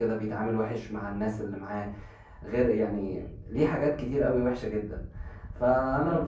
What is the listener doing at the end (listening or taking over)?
listening